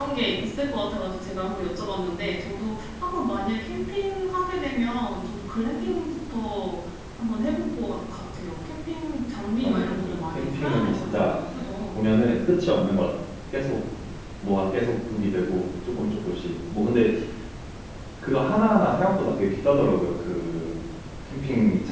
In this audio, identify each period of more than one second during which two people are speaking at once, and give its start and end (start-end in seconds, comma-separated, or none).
9.6-11.4